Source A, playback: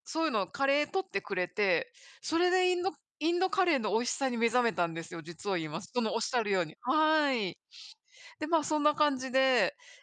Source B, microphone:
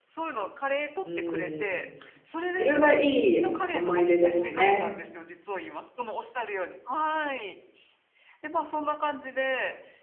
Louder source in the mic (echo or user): user